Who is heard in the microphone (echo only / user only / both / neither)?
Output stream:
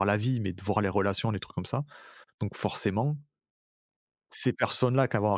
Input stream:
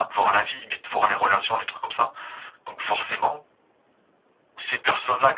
echo only